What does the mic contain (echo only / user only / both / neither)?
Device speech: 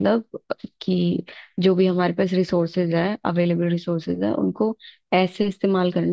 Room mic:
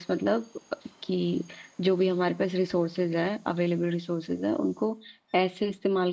echo only